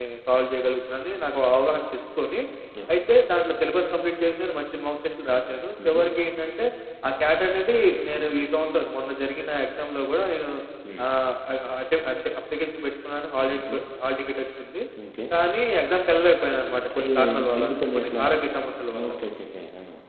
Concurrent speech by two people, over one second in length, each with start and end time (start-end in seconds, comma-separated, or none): 16.9-18.2